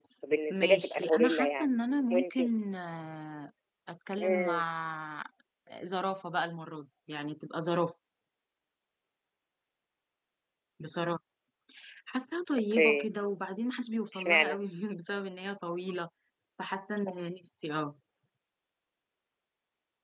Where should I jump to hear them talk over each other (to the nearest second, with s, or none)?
1 s